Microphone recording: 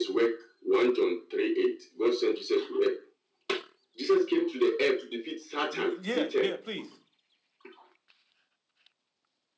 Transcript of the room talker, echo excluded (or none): You, yeah, yeah, please.